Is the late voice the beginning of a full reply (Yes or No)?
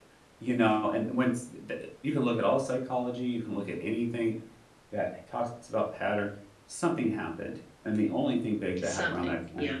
No